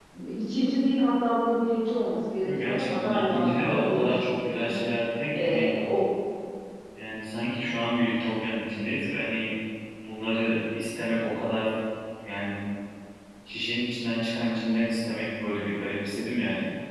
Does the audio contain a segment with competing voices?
Yes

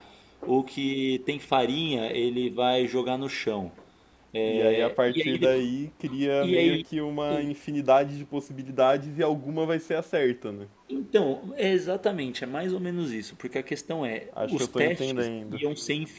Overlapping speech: Yes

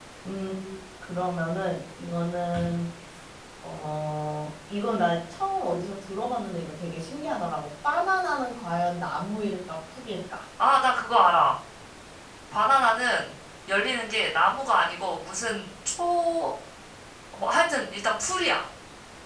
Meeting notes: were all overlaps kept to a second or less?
Yes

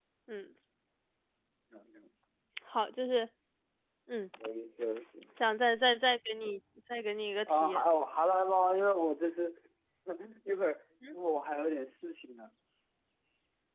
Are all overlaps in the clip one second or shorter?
Yes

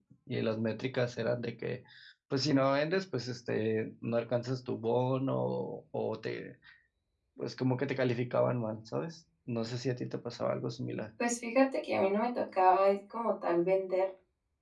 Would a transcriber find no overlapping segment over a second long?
Yes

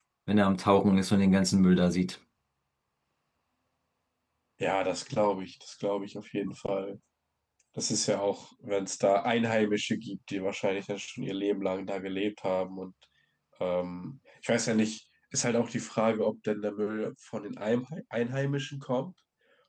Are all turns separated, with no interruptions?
Yes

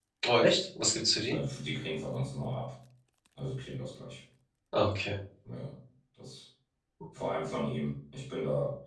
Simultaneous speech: No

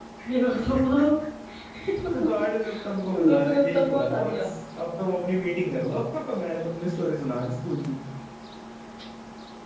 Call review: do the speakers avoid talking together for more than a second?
No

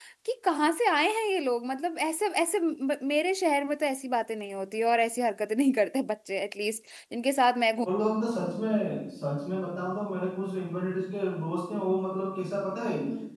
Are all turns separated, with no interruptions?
Yes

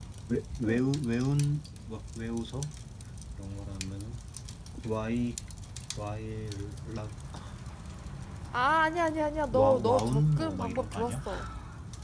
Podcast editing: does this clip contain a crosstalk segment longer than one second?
Yes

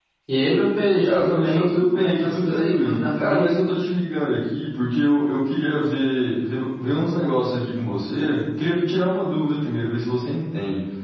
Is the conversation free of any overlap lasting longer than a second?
No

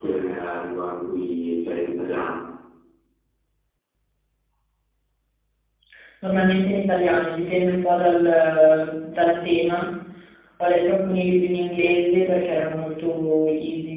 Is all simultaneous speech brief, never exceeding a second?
Yes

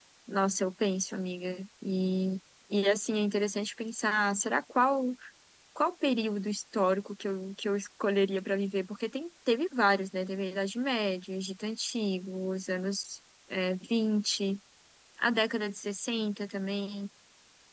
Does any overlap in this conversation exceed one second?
No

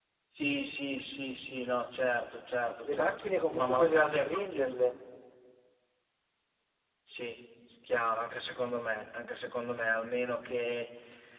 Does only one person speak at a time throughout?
No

